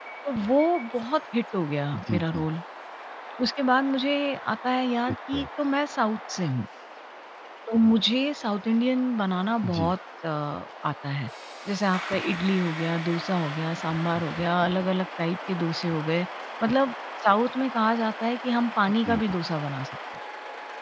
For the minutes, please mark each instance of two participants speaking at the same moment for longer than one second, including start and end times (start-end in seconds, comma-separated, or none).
none